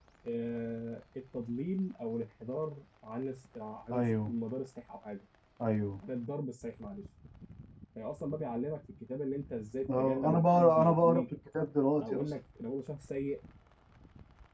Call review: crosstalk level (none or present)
present